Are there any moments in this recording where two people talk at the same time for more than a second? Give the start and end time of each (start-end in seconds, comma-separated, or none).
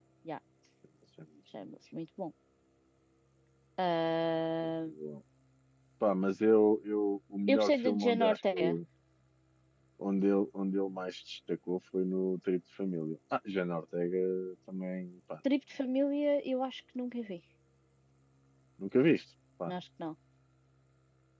7.5-8.8